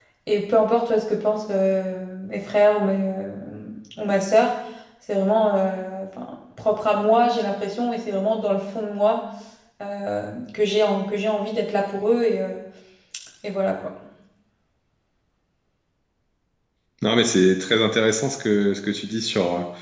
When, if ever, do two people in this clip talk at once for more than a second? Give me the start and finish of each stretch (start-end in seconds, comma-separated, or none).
none